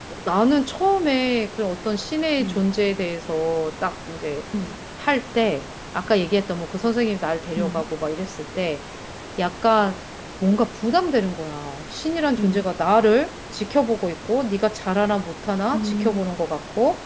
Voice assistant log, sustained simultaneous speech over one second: none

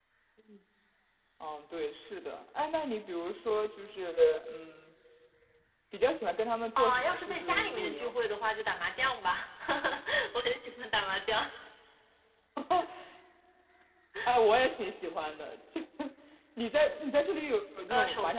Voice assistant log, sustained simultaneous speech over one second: present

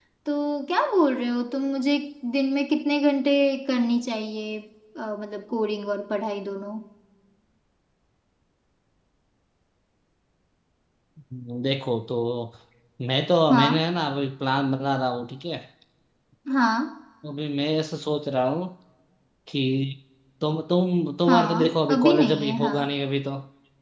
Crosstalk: present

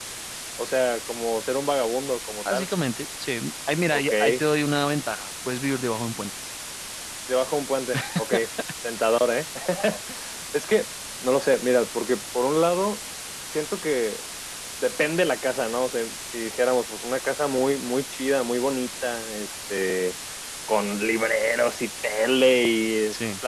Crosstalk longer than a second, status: none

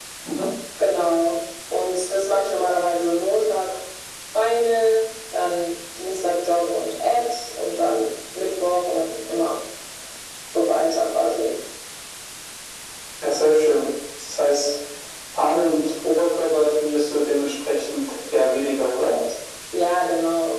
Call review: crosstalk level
none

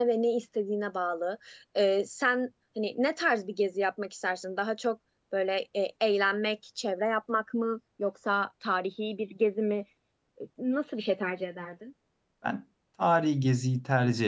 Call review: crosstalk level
none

